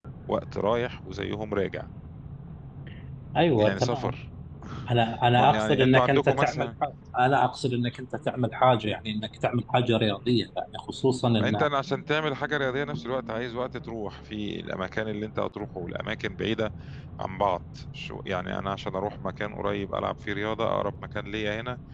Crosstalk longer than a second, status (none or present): present